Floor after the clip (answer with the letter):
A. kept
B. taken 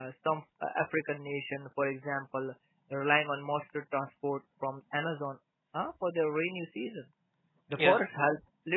A